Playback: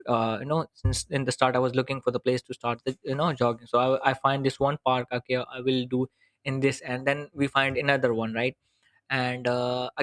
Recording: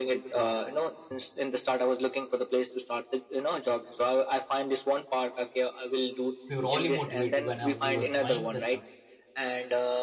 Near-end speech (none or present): present